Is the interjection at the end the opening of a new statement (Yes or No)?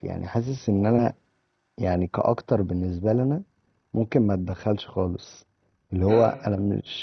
No